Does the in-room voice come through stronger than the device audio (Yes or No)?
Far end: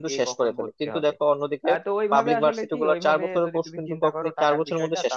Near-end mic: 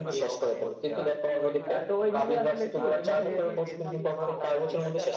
No